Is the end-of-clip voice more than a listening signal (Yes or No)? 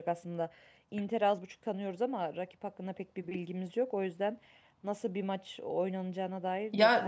Yes